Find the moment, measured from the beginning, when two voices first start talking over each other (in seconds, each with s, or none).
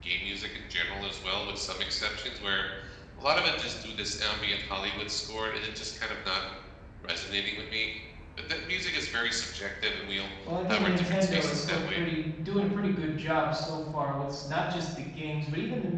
10.7 s